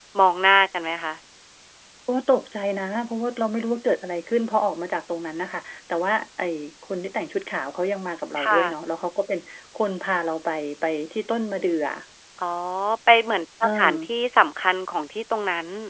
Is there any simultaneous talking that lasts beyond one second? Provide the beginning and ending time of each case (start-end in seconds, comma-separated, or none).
none